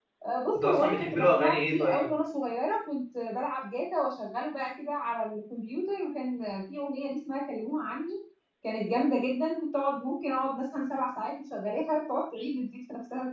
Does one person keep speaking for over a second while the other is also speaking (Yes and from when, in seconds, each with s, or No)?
Yes, from 0.5 s